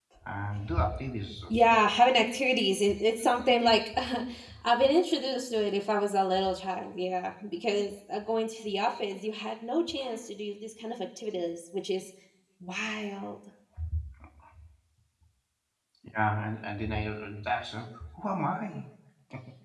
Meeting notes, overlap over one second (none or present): none